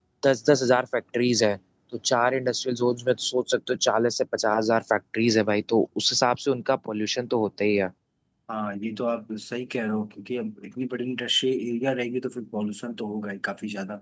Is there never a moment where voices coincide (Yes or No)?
Yes